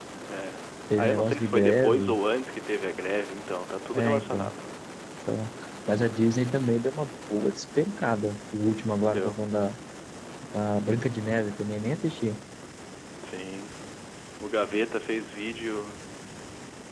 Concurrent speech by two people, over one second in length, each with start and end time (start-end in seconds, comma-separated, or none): 1.0-2.2